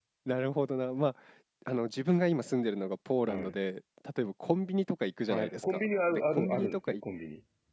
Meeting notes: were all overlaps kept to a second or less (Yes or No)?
No